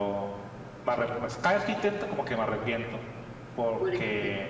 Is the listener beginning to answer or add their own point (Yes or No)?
No